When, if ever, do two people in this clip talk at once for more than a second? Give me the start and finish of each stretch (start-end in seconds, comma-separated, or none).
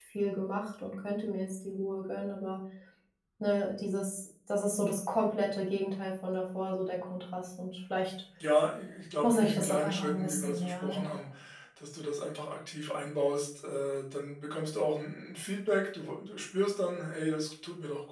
9.2-11.0